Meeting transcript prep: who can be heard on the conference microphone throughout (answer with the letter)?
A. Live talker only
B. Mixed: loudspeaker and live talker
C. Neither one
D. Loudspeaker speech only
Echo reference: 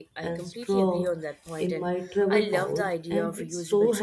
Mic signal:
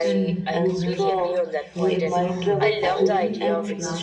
B